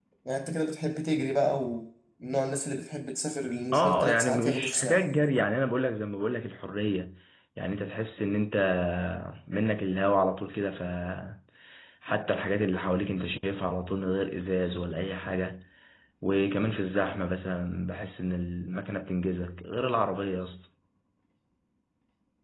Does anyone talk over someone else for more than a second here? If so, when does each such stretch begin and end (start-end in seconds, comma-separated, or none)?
3.7-5.0